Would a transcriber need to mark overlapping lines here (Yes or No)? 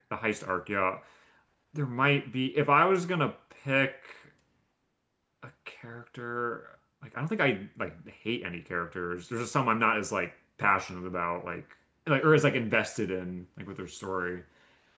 No